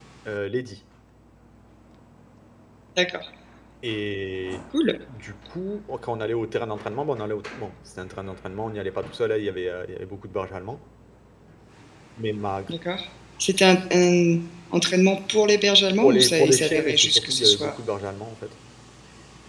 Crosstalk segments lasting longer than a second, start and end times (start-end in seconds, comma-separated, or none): 16.0-17.7